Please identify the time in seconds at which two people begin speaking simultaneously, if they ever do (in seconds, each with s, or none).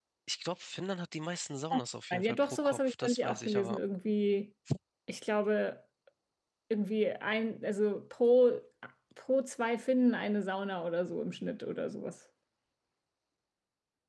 2.1 s